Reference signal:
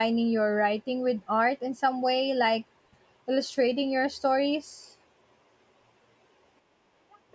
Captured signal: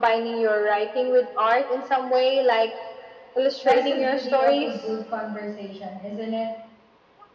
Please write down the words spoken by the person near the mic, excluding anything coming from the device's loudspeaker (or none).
That's the beauty of a good conversation, isn't it?